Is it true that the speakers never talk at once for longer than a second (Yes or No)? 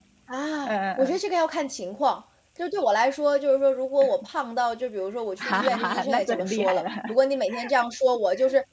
No